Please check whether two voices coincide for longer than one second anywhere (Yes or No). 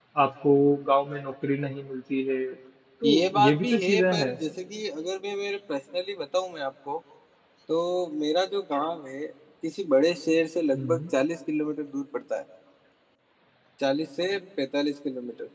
Yes